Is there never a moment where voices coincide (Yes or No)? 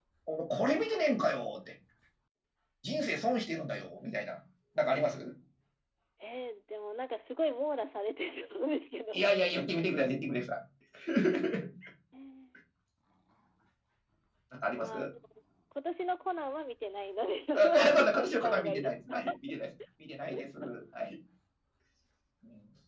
No